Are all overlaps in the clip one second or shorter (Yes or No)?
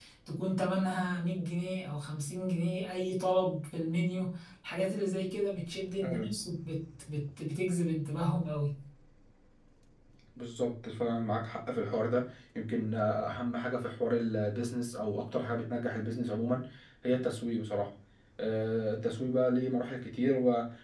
Yes